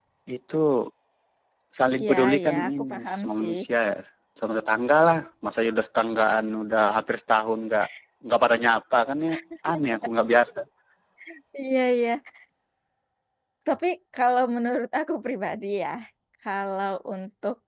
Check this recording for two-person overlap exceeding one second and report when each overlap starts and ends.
2.0-3.5

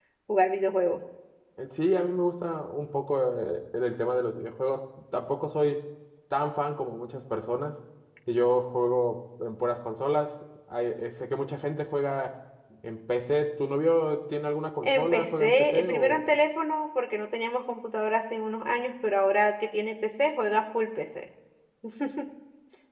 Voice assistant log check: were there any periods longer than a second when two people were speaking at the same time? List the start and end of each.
14.8-16.2

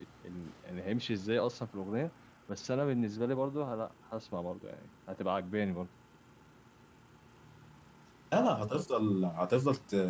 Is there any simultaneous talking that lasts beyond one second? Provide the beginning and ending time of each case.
none

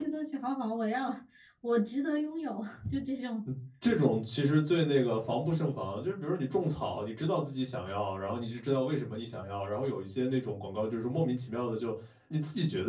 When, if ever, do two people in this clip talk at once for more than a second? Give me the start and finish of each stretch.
none

